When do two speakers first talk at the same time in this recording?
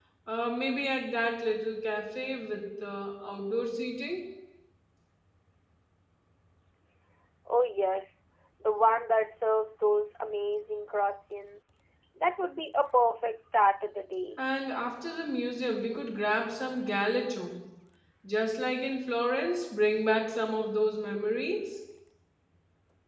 none

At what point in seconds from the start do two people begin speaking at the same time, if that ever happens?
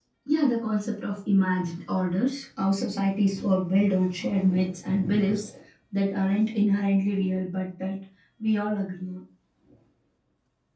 none

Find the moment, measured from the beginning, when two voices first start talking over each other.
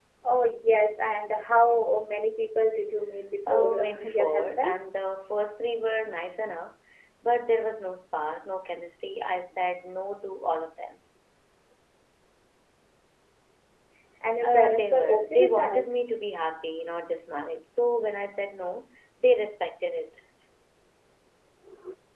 3 s

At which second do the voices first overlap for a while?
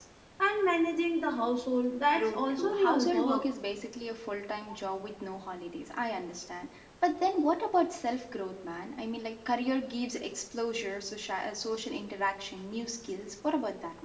2 s

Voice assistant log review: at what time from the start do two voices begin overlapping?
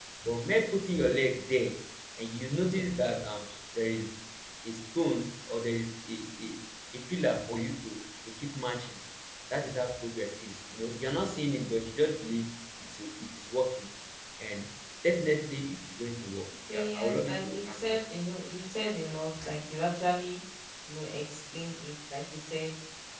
17 s

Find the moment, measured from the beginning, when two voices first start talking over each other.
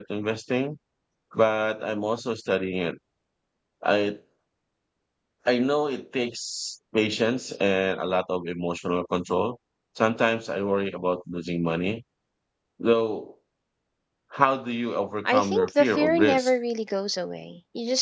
15 s

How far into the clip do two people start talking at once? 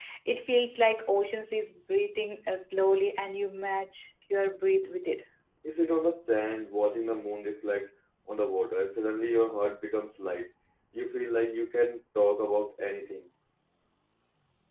none

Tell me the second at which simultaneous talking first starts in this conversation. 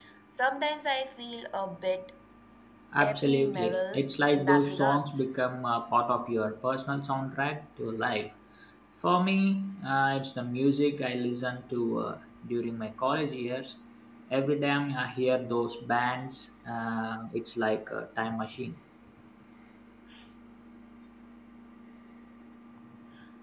3 s

